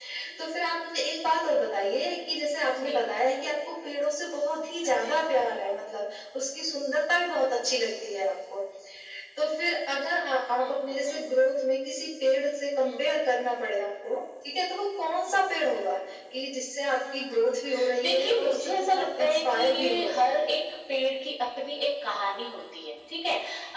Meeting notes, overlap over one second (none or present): present